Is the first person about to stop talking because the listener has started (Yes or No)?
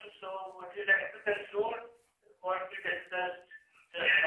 Yes